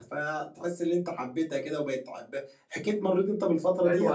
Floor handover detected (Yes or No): Yes